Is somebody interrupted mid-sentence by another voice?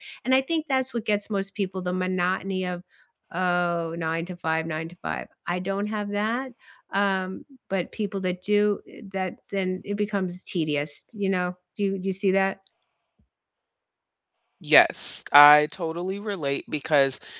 No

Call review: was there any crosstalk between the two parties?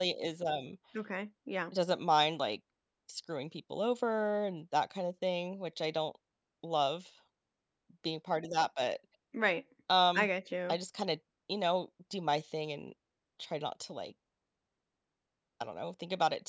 No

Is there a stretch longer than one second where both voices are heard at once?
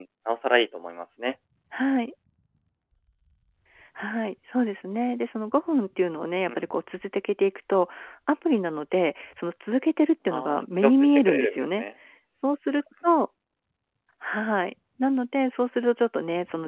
Yes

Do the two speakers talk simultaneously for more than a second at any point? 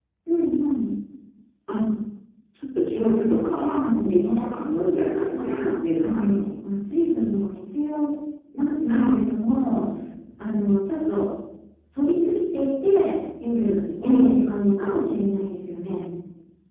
Yes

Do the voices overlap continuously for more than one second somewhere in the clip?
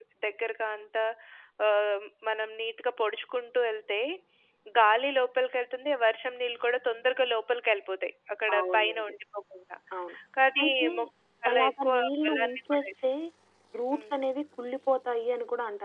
Yes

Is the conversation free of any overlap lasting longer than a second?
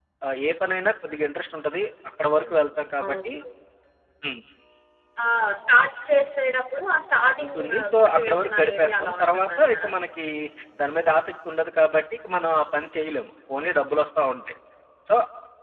No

